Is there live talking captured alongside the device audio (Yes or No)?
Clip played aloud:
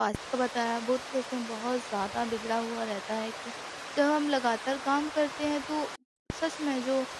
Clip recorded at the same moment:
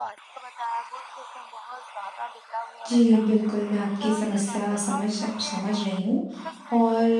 Yes